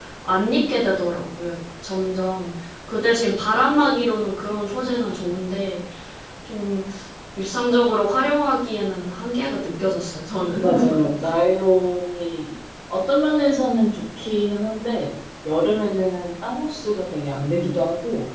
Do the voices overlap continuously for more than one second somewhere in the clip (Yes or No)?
No